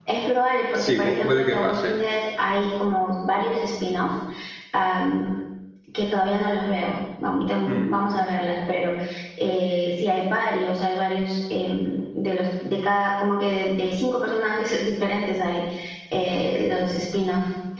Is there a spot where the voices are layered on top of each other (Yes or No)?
Yes